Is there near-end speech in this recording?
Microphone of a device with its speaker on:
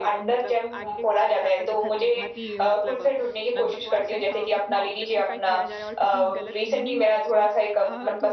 Yes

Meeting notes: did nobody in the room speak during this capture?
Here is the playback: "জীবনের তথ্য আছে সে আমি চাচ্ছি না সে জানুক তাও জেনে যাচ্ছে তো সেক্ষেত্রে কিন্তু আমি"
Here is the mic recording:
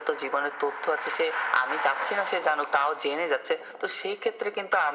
Yes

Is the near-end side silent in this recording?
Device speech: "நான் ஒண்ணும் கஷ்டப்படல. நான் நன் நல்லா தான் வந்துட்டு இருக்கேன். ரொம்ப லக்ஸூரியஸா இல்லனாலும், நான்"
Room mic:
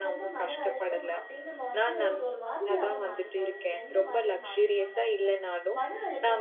No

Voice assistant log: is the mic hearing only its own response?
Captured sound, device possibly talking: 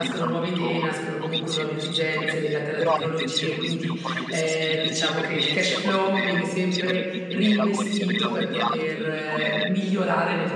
No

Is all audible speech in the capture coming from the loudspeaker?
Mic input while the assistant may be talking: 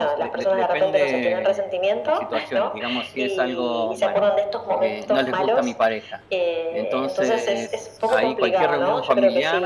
No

